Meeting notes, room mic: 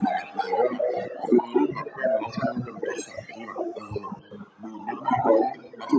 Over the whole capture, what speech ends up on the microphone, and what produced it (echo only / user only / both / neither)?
echo only